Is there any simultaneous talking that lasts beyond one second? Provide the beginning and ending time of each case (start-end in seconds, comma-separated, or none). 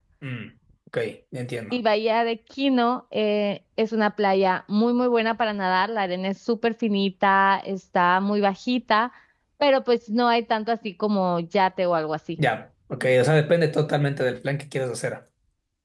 none